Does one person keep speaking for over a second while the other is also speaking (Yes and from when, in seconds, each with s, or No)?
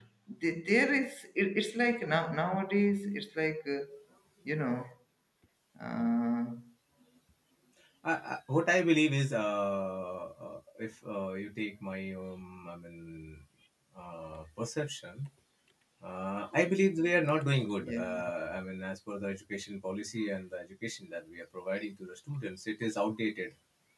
No